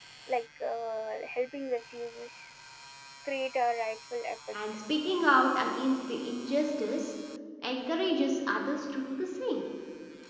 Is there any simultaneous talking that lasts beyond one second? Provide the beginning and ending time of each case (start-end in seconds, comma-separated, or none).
none